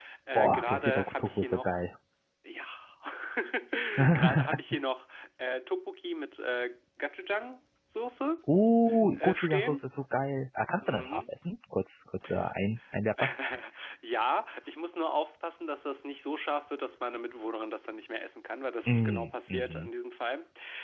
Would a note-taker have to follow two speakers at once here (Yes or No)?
Yes